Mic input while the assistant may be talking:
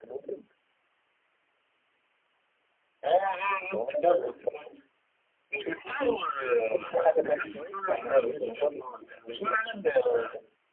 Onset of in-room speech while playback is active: none

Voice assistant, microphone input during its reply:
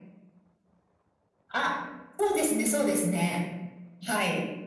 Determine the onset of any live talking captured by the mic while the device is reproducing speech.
none

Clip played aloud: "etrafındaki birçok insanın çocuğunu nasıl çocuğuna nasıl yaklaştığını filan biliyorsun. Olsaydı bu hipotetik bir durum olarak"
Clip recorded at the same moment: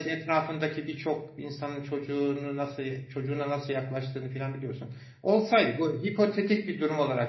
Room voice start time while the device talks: none

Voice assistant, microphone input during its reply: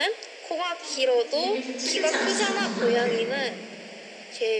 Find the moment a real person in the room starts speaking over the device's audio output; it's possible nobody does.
0.8 s

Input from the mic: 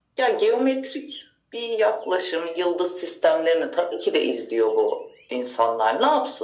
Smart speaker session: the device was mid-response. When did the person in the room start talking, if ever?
none

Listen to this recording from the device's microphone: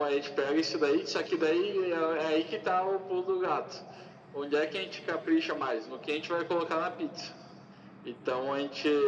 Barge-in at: none

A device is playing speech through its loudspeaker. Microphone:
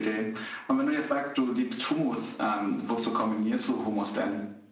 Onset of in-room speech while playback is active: none

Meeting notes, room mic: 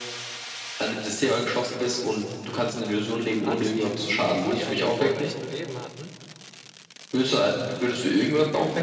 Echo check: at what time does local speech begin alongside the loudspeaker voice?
3.4 s

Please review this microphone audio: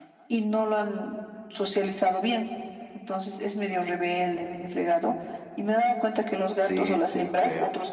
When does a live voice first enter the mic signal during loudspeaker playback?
6.5 s

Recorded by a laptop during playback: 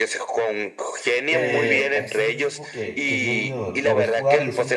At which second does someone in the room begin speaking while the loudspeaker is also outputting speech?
1.3 s

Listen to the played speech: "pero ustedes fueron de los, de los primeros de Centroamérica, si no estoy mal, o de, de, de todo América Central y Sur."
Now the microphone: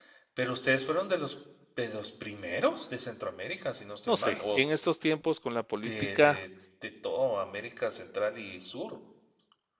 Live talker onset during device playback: 4.0 s

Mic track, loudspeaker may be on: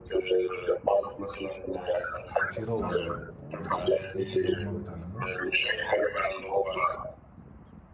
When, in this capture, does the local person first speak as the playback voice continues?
2.3 s

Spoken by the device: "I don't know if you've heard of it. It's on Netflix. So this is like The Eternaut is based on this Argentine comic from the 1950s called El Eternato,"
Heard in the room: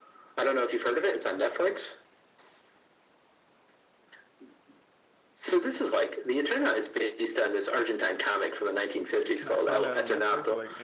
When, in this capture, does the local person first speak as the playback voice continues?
9.1 s

